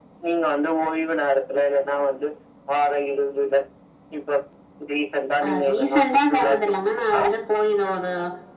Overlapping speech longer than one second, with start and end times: 5.4-7.2

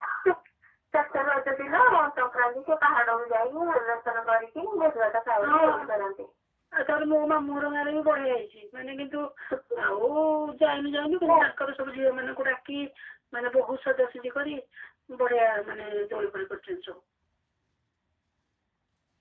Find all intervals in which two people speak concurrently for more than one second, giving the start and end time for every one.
none

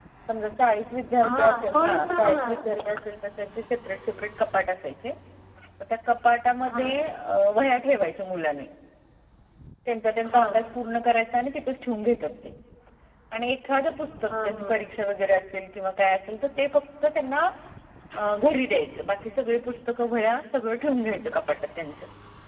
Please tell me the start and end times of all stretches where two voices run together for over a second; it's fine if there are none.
1.3-2.6

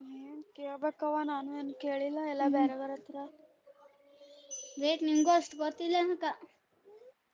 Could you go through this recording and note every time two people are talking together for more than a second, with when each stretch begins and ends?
none

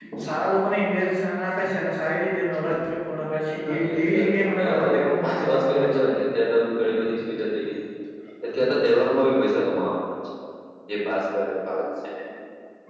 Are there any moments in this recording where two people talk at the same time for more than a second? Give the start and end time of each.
3.7-6.2

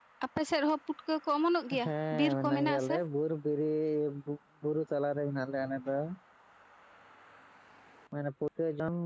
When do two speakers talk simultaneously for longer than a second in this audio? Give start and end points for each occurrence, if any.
1.8-3.0

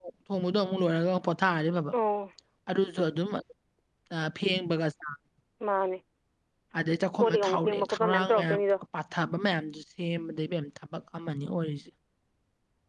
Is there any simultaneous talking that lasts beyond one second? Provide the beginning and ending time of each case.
7.2-8.6

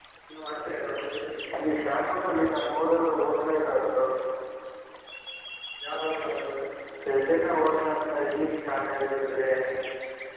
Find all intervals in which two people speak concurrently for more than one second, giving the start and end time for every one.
none

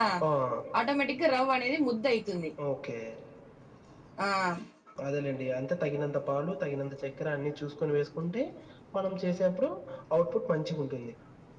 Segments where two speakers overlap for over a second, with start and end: none

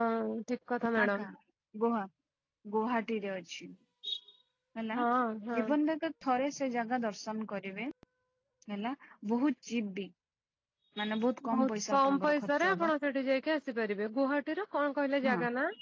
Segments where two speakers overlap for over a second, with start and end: 11.5-12.9

